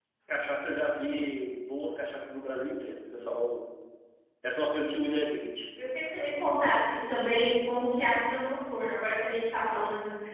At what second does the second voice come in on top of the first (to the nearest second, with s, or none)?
none